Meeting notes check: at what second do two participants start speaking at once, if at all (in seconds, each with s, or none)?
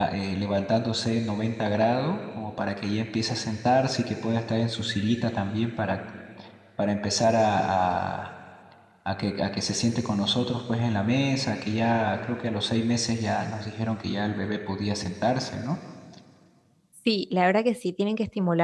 none